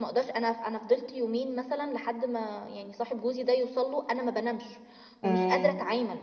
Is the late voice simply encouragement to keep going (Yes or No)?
Yes